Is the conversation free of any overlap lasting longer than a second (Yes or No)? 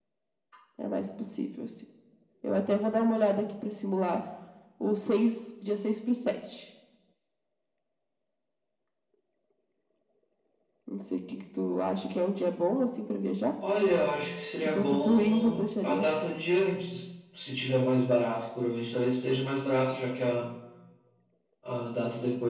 No